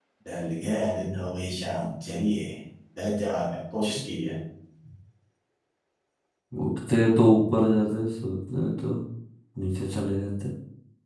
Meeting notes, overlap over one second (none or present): none